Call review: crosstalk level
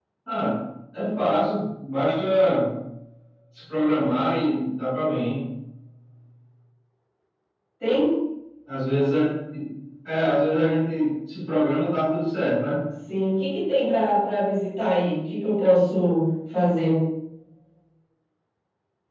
none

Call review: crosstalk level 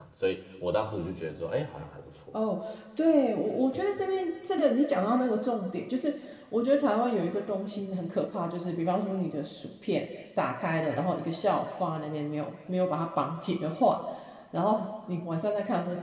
none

